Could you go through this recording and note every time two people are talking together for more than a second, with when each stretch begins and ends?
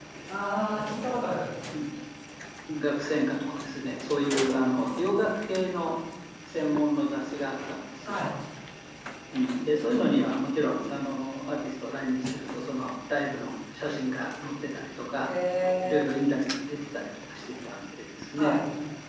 none

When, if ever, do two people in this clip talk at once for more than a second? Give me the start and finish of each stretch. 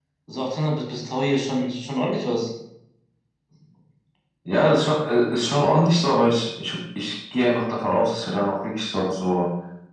none

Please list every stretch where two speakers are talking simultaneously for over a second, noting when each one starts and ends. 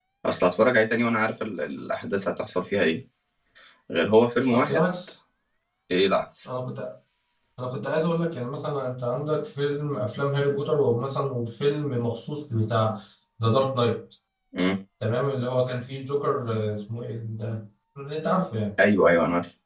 none

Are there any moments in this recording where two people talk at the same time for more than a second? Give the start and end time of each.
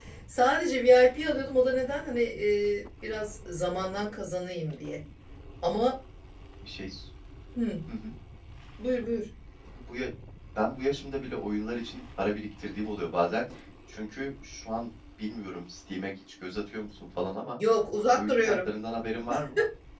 none

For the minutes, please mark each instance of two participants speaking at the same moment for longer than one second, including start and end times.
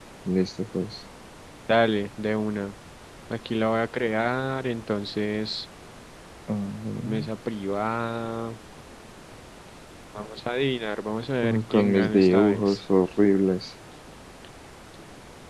11.4-12.7

